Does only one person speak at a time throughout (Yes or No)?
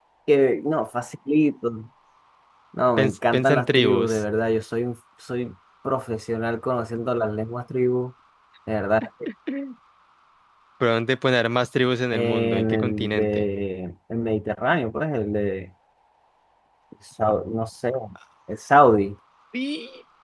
No